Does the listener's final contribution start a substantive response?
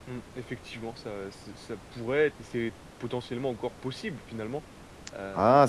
Yes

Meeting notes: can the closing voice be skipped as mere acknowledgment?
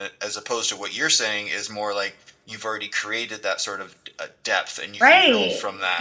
No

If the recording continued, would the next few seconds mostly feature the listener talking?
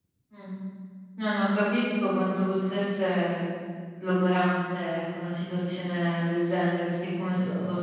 No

